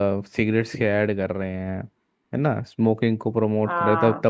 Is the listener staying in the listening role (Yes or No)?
Yes